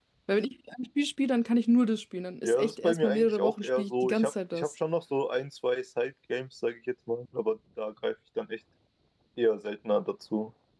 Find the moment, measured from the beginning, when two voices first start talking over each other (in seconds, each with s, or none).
2.4 s